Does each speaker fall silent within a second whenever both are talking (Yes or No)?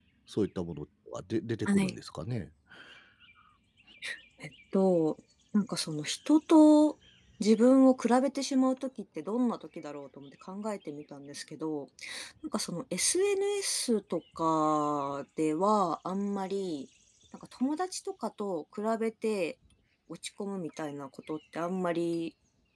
Yes